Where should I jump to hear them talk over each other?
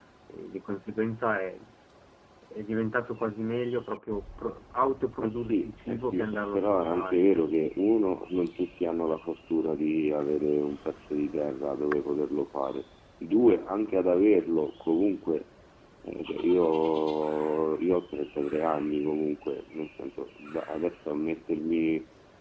5.2 s

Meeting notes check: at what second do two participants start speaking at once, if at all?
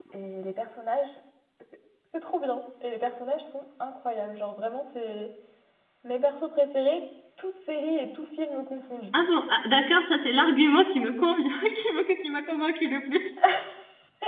none

